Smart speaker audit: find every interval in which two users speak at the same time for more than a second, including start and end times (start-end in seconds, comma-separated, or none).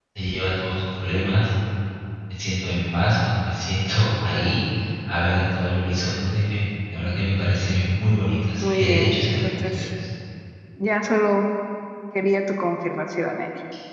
8.6-9.9